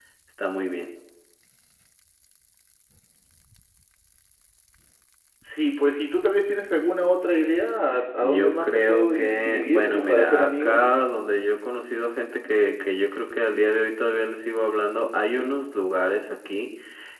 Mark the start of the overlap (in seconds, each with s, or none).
8.2 s